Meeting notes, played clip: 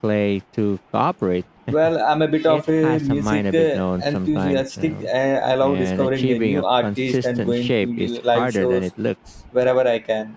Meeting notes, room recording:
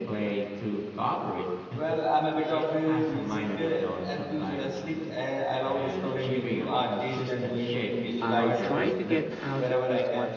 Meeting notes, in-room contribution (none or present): present